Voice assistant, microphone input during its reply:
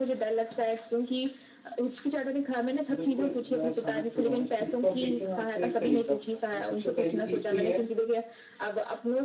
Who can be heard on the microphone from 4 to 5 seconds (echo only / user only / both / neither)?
both